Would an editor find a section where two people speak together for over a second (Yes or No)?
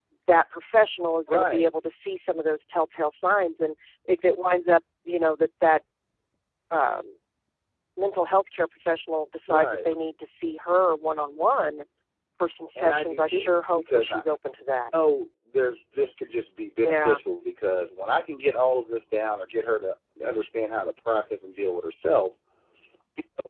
Yes